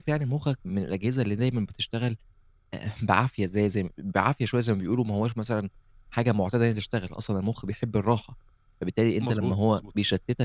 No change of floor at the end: Yes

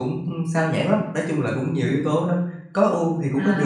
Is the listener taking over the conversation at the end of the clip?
Yes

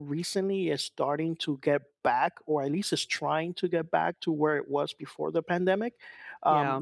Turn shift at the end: No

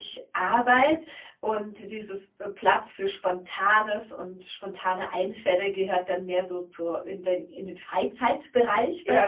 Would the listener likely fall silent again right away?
No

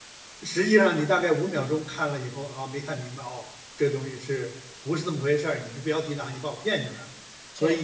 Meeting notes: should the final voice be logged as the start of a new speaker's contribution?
Yes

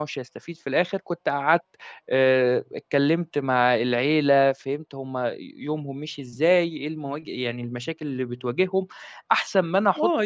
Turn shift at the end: Yes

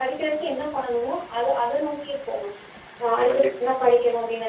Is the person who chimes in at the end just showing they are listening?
Yes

